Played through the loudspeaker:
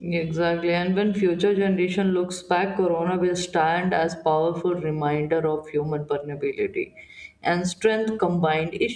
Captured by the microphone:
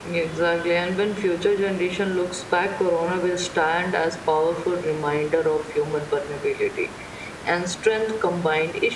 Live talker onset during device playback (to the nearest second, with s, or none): none